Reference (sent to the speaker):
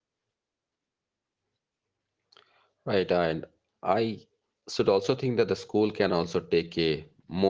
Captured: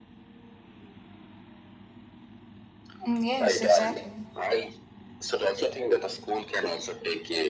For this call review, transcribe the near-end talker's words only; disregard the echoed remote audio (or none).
Mm, Yes, exactly.